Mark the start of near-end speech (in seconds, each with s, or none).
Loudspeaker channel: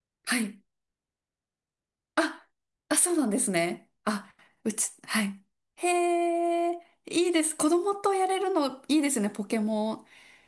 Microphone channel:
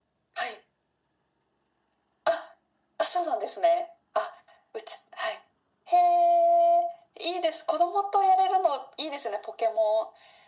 none